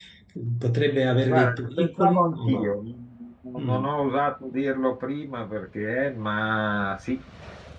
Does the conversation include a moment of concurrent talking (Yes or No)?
Yes